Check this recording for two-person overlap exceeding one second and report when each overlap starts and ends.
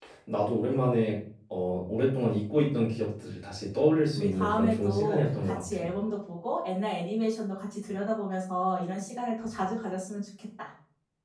4.2-5.9

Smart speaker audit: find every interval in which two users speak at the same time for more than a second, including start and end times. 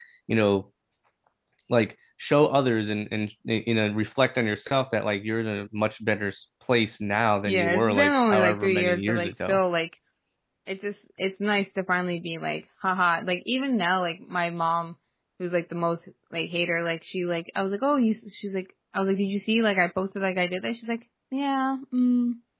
7.5-9.6

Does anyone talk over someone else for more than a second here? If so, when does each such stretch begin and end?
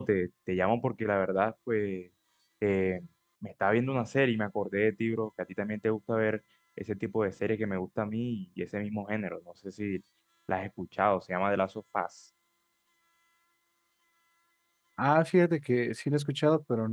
none

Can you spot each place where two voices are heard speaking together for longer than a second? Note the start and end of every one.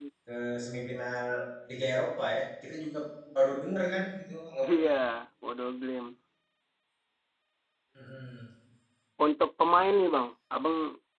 none

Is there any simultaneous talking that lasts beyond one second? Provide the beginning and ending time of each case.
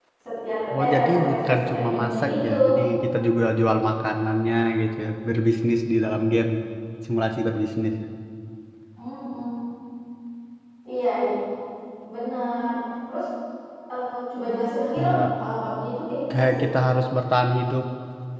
0.8-2.5

